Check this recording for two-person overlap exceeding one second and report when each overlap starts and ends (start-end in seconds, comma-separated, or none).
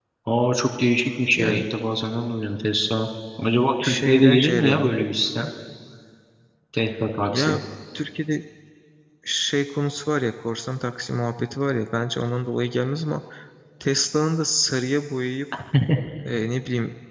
3.8-5.1